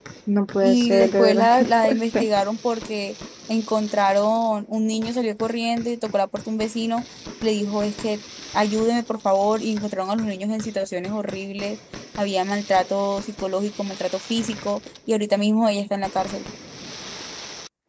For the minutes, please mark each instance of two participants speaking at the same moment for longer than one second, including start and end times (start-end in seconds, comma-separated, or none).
0.6-2.3